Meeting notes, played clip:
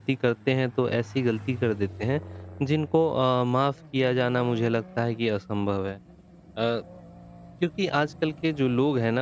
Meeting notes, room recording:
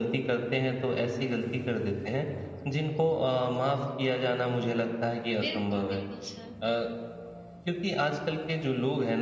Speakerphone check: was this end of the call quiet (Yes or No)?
No